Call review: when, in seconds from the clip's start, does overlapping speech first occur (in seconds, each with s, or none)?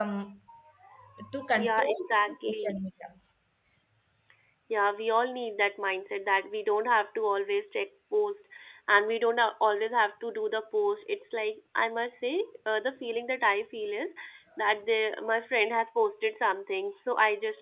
1.6 s